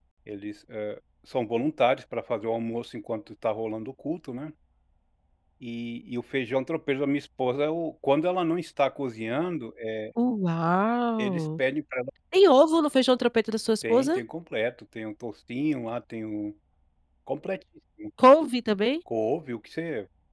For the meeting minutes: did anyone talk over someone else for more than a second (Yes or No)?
No